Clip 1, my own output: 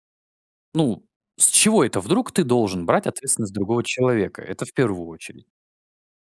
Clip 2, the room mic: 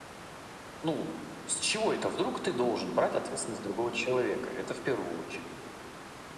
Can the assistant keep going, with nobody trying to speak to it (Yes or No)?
Yes